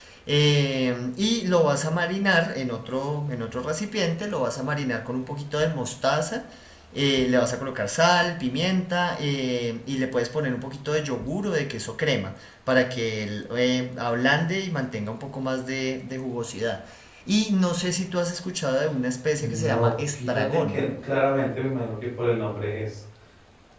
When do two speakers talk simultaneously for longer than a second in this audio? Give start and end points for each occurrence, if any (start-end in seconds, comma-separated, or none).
19.4-20.8